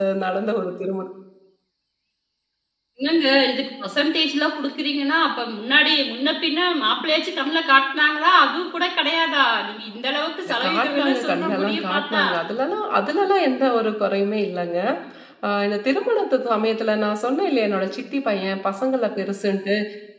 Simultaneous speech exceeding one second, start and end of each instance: 10.5-12.2

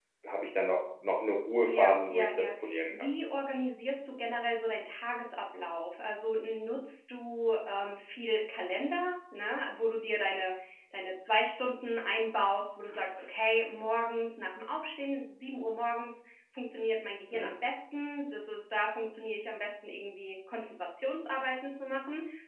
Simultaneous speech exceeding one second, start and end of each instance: 1.6-3.1

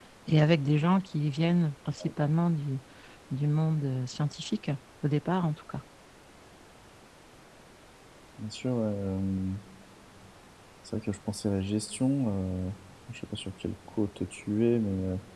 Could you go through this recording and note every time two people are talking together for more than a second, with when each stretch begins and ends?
none

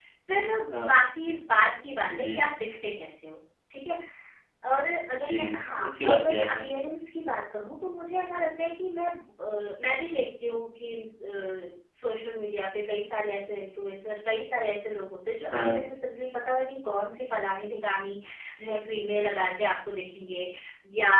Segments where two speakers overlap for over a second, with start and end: 5.2-6.7

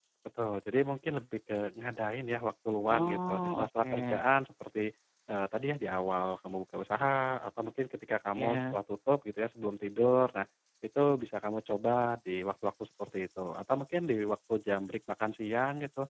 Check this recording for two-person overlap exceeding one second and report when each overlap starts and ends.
2.9-4.2

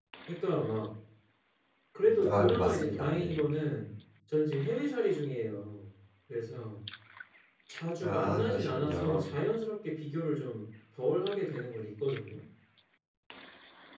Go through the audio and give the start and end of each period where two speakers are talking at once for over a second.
2.1-3.4, 8.0-9.3

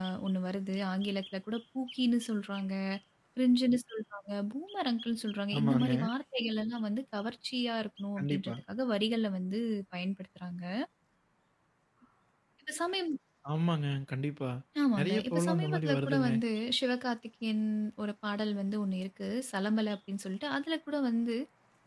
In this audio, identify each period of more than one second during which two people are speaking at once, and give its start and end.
15.0-16.3

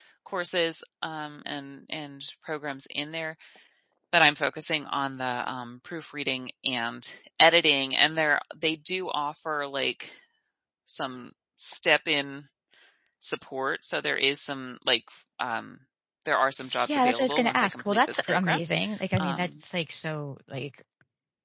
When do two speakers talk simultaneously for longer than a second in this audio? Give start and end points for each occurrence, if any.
16.9-18.6

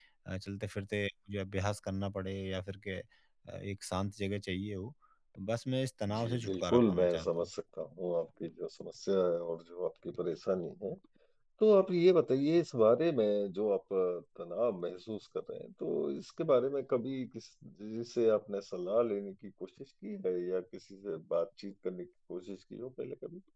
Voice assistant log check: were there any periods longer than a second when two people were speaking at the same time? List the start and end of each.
6.1-7.5

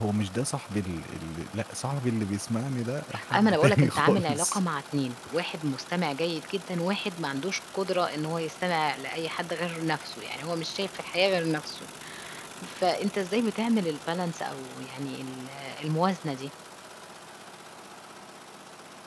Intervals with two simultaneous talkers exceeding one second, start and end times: 3.3-4.6

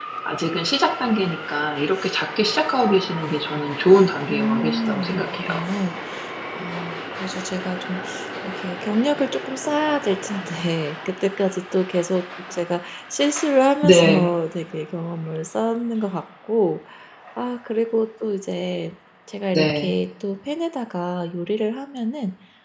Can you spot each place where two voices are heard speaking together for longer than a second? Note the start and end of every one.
4.3-5.6

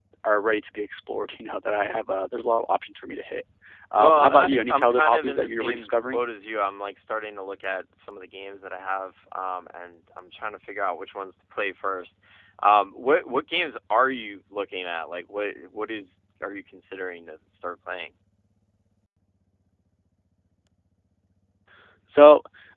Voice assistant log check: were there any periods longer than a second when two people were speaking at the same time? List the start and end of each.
4.0-6.2

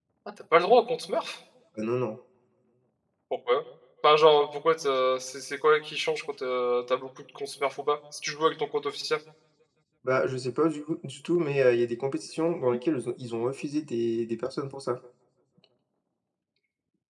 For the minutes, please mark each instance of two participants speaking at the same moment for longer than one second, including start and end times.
none

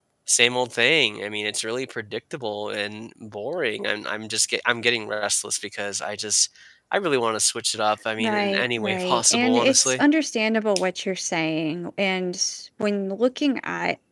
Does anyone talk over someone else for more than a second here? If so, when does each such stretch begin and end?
8.2-10.0

